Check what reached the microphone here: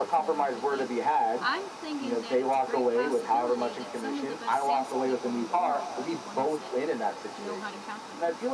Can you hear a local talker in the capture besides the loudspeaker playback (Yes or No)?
Yes